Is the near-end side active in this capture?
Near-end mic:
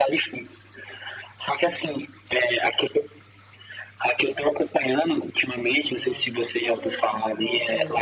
Yes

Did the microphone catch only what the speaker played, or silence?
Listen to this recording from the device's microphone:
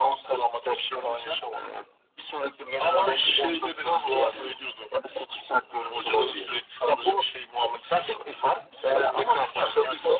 Yes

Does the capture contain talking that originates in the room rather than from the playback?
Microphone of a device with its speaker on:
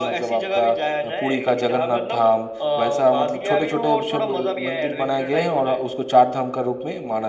No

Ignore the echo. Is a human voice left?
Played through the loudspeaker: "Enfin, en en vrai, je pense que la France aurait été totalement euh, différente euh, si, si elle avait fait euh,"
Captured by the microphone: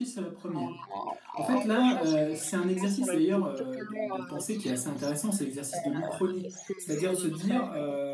Yes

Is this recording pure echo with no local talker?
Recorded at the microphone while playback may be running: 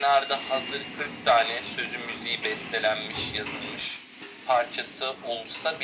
Yes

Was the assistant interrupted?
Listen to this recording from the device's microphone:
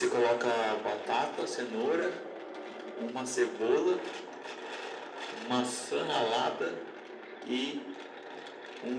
No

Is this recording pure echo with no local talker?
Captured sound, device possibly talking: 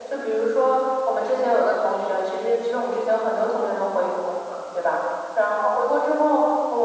Yes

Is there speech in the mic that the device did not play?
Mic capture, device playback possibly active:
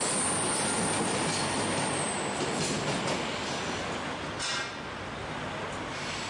No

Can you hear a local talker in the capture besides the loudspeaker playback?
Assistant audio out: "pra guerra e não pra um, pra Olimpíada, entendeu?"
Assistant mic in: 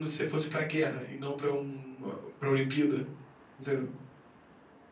No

